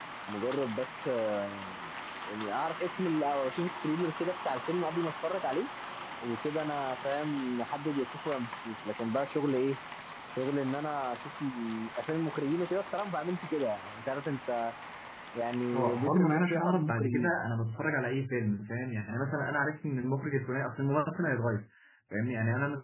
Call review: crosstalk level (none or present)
present